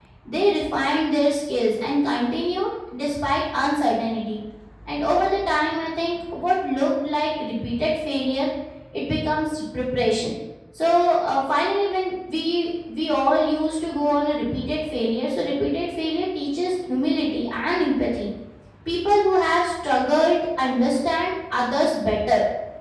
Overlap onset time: none

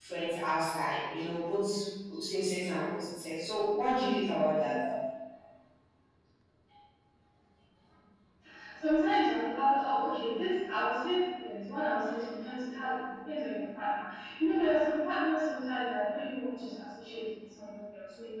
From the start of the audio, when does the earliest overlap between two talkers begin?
none

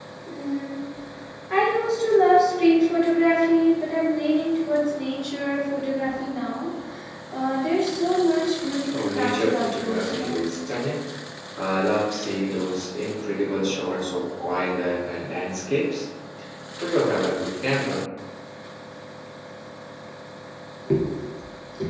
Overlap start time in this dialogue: 8.9 s

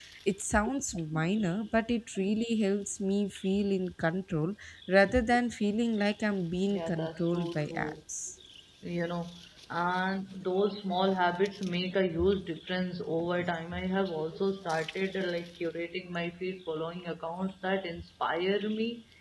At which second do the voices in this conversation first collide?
6.7 s

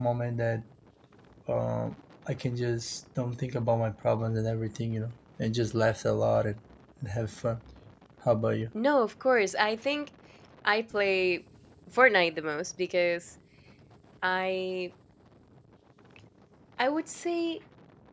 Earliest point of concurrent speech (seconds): none

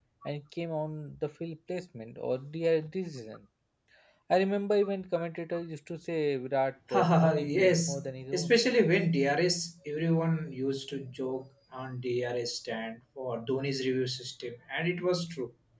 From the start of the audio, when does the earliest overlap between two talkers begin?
6.9 s

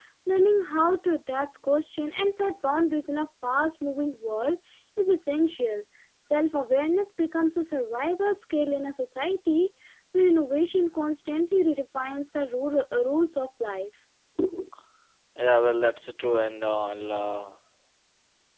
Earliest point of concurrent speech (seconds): none

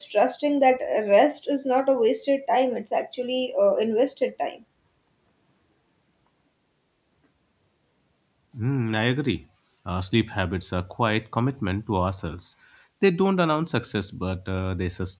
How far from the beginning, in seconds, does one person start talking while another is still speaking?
none

